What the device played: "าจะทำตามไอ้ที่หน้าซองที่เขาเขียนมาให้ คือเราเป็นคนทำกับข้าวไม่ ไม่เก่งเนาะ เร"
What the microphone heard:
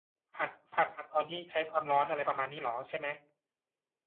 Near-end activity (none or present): present